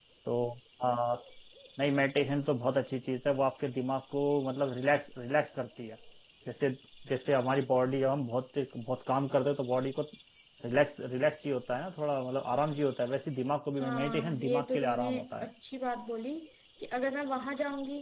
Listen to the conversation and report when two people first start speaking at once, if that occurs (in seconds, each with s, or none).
13.8 s